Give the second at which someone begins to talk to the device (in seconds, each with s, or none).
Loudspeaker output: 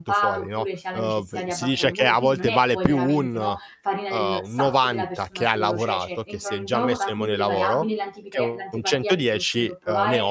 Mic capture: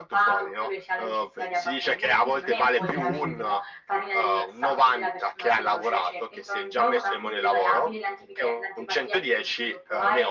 2.7 s